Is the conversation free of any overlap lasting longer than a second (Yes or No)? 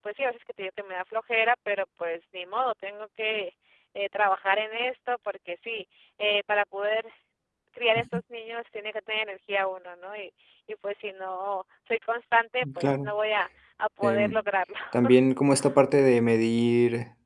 Yes